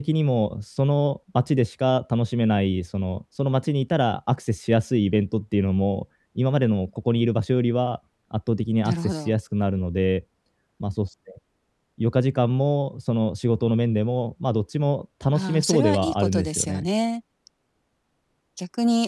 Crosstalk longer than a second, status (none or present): present